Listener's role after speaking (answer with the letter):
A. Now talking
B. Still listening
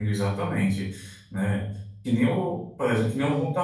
B